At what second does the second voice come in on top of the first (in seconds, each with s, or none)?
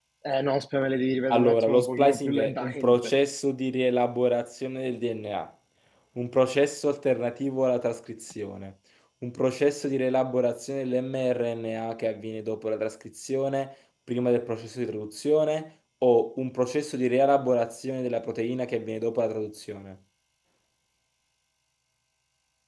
1.3 s